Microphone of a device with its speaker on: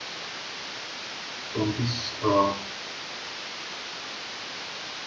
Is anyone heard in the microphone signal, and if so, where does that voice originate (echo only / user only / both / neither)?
user only